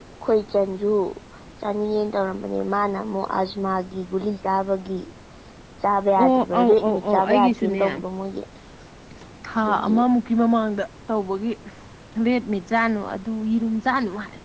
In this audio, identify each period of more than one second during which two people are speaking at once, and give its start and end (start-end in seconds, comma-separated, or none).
6.2-7.8